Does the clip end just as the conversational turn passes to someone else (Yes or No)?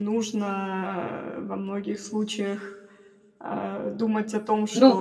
Yes